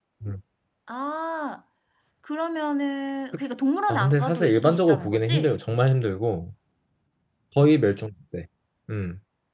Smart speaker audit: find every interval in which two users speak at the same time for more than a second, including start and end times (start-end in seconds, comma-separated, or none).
3.9-5.5